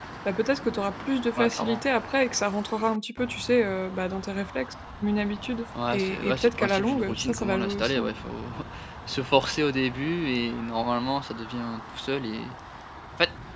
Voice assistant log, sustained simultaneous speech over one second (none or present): present